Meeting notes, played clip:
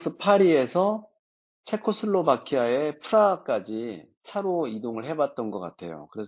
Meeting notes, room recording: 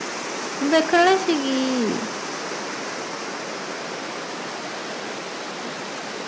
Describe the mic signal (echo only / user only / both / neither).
user only